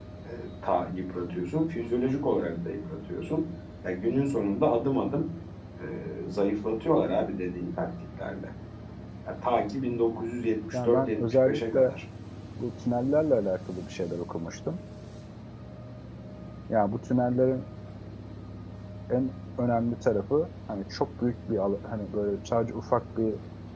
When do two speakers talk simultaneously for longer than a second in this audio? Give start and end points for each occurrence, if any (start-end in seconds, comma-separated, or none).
10.7-12.0